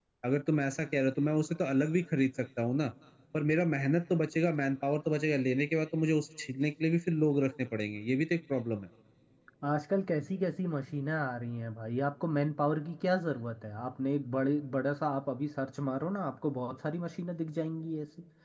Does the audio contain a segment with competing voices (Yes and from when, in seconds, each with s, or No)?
No